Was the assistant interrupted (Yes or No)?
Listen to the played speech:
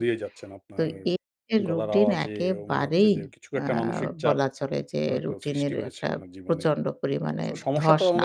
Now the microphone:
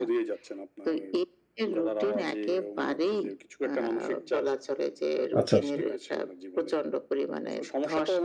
Yes